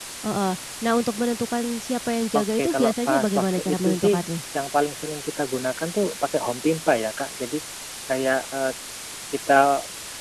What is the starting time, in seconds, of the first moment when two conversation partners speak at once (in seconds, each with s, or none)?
2.3 s